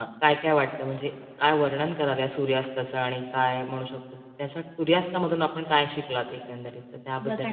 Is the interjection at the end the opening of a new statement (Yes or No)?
Yes